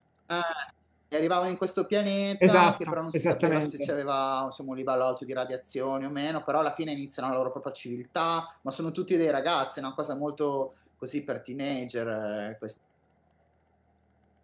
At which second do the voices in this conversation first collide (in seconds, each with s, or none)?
2.4 s